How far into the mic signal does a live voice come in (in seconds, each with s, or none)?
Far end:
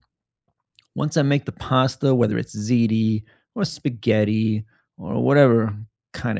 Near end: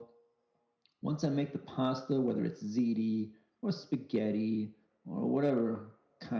none